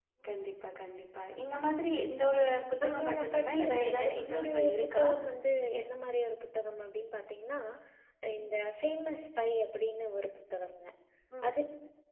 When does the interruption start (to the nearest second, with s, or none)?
3 s